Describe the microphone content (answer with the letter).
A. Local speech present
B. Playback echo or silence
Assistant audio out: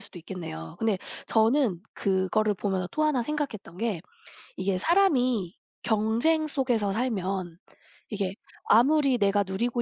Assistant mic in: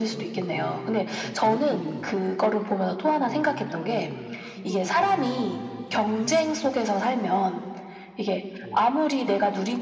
A